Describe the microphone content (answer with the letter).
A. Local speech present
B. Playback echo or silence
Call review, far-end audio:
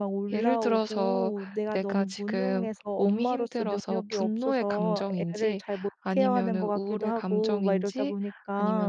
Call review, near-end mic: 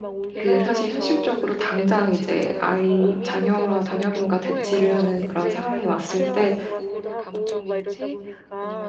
A